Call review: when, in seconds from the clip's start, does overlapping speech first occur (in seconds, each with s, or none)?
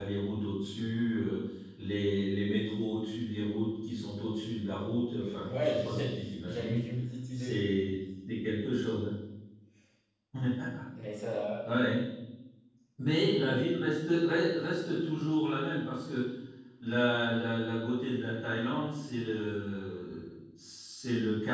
5.5 s